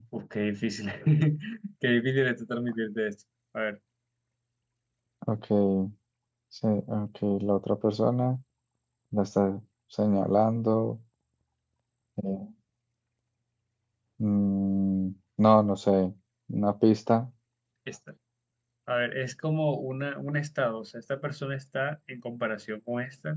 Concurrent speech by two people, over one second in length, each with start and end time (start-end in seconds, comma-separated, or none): none